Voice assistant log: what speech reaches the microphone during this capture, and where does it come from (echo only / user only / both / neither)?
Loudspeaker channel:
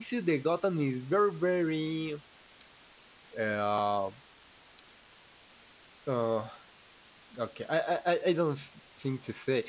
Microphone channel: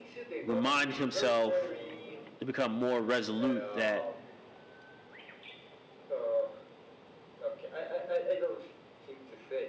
both